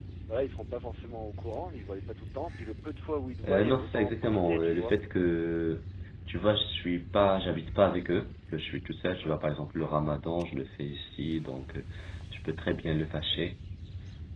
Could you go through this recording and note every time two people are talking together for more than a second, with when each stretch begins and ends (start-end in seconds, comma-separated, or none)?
3.5-5.0